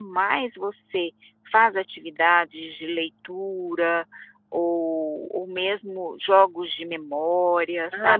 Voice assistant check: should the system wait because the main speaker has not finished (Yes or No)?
No